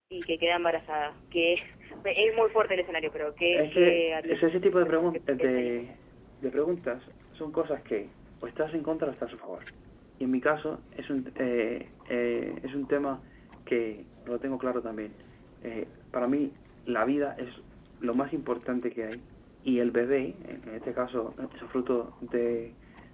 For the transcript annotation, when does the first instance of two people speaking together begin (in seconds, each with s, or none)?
3.5 s